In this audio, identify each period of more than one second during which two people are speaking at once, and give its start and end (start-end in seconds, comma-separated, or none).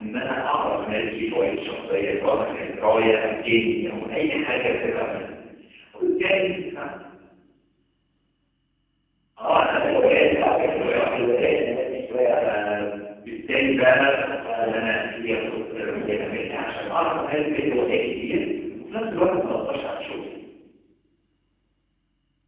9.4-11.5